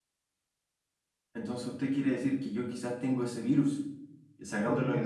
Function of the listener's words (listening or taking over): listening